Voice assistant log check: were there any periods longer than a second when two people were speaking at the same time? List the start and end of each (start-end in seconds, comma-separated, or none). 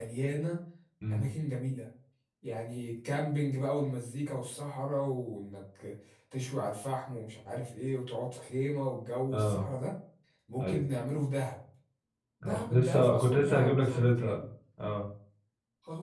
12.4-14.4